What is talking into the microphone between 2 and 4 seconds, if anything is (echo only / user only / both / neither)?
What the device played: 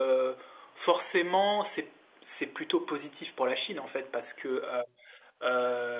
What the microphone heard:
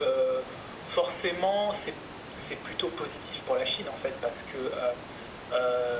echo only